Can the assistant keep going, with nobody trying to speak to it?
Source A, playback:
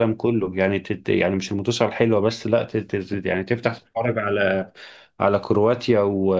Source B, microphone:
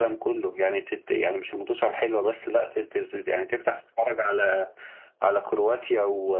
Yes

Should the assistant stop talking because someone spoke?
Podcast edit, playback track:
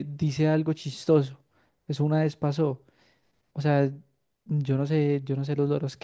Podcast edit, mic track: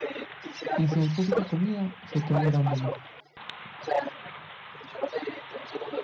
Yes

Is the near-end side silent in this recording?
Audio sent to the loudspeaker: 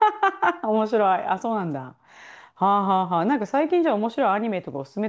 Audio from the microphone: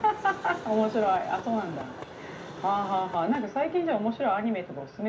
Yes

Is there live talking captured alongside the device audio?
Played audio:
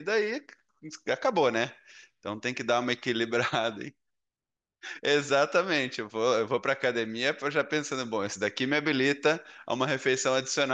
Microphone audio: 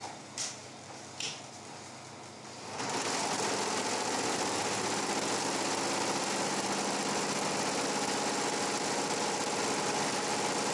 No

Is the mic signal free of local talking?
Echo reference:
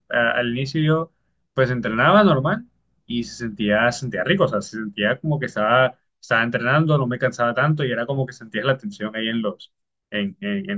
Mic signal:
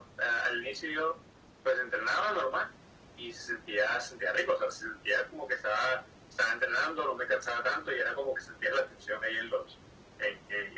Yes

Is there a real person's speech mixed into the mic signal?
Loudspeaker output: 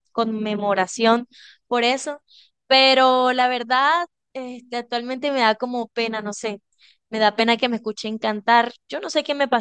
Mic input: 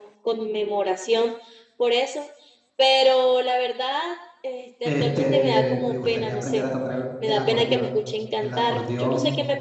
Yes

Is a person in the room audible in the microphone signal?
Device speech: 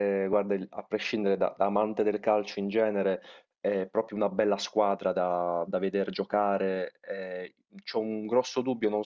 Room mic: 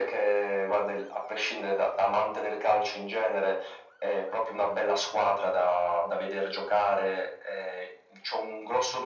No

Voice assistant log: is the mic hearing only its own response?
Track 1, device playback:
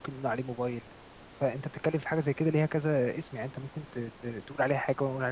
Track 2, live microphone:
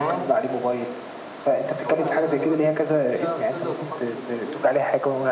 No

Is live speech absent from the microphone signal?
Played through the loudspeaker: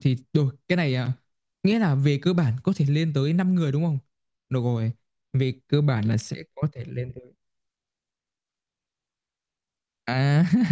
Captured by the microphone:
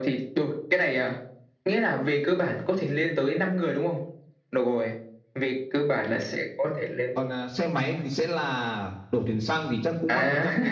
No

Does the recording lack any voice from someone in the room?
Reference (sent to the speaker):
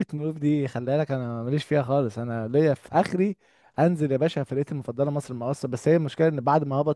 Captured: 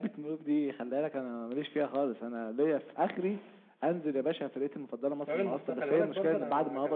No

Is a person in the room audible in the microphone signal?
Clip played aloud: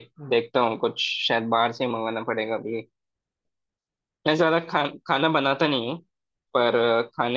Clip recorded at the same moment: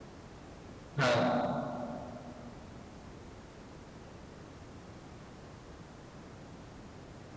Yes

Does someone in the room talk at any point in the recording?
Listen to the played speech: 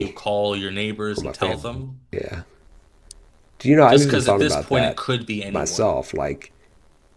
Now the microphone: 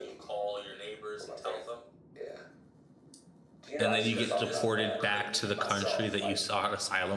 Yes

